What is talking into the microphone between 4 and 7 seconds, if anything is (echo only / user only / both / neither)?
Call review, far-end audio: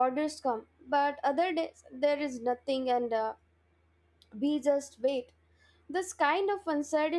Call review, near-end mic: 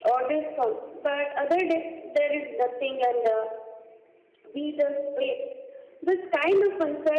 echo only